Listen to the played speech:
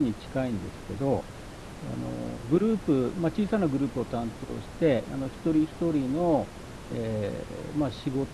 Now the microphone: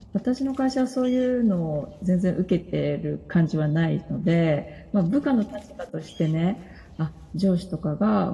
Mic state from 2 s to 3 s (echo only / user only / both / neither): user only